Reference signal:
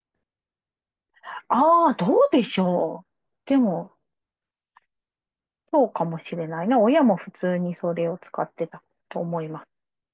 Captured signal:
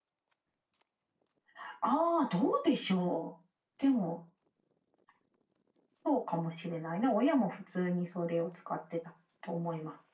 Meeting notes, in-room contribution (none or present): none